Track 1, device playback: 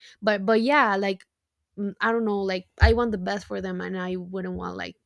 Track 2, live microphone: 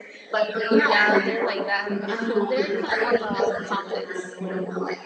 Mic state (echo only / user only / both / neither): both